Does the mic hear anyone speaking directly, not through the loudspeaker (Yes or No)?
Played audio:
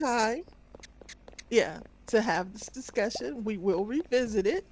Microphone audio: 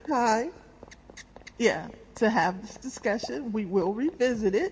No